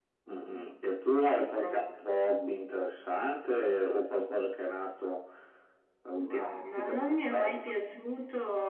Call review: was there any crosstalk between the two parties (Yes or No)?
Yes